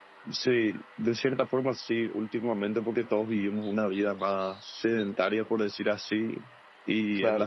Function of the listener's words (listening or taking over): listening